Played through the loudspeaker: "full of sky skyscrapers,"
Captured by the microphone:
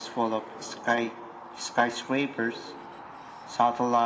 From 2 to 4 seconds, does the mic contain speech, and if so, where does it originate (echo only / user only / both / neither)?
echo only